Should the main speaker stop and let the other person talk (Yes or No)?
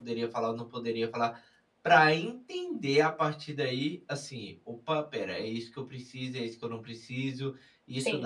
Yes